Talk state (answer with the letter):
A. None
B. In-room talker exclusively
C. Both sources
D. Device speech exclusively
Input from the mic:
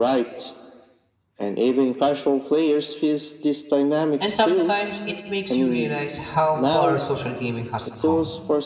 C